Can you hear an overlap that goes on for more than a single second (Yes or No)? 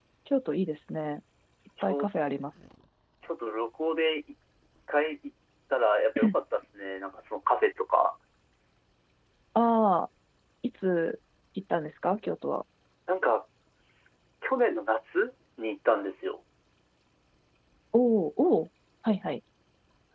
No